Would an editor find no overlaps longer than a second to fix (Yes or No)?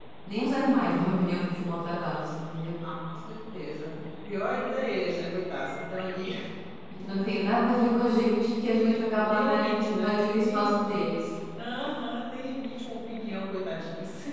No